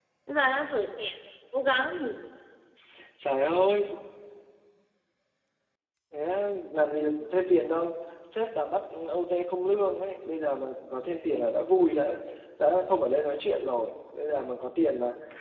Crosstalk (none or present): none